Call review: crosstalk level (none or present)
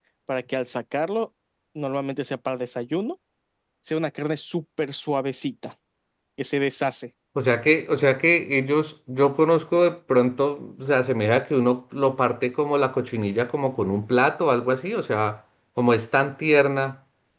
none